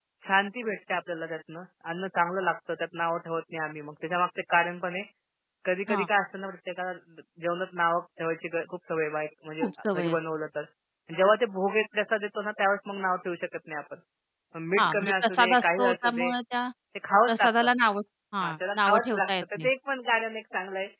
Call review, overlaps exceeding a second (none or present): present